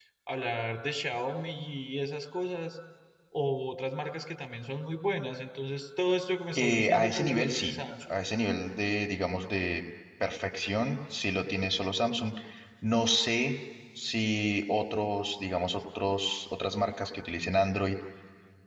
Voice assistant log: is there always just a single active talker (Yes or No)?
No